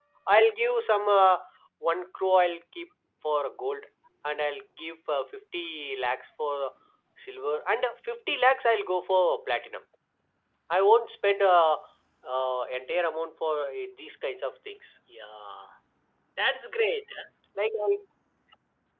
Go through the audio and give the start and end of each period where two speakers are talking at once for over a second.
none

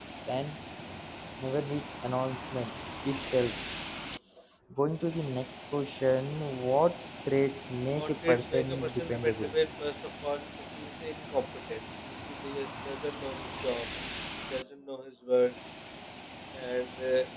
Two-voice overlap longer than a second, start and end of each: 8.0-9.5

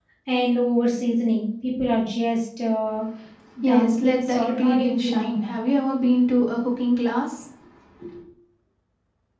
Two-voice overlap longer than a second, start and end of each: 3.6-5.4

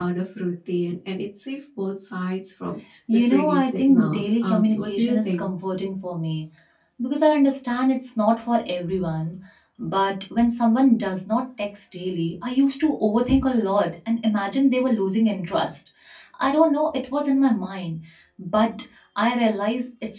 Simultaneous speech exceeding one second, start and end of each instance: 3.1-5.5

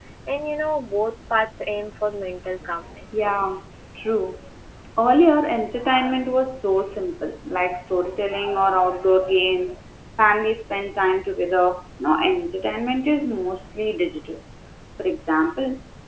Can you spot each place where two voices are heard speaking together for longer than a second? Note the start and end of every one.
none

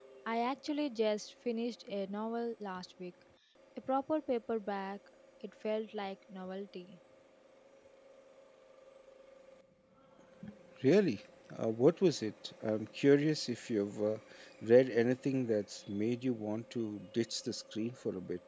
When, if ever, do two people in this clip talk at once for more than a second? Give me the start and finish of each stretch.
none

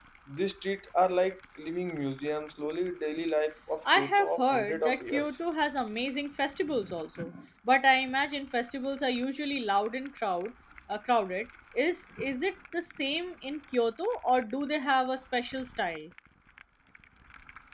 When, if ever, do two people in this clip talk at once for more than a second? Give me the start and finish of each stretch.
4.0-5.4

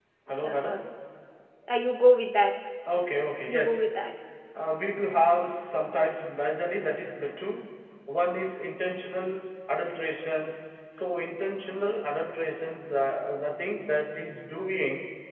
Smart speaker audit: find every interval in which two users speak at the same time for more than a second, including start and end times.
none

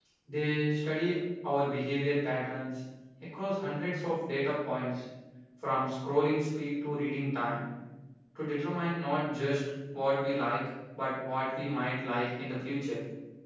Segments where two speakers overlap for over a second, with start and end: none

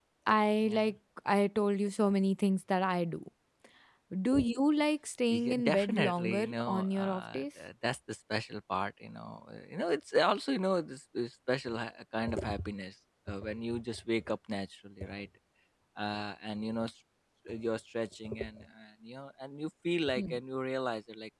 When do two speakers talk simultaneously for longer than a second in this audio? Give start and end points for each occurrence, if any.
5.3-7.4

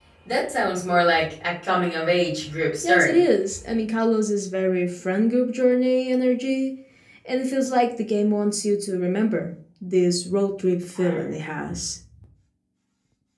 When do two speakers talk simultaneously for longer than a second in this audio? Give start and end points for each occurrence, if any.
none

